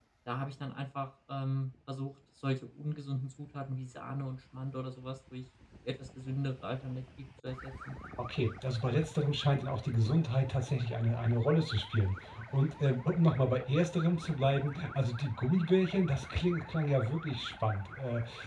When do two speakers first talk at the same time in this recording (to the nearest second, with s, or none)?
none